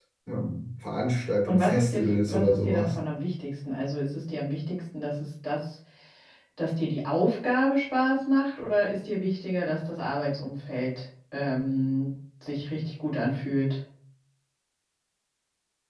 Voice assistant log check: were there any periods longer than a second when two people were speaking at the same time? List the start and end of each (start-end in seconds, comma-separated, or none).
1.5-3.0